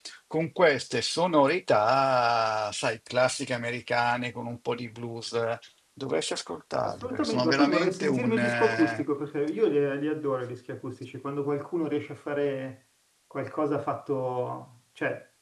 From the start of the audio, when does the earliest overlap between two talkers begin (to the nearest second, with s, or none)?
7 s